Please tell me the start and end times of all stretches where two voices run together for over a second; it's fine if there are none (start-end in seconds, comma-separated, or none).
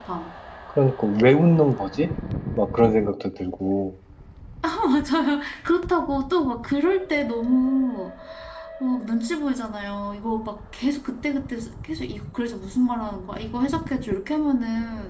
none